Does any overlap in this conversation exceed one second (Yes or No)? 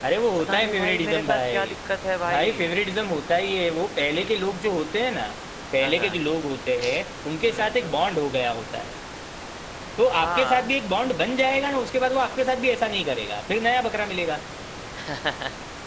Yes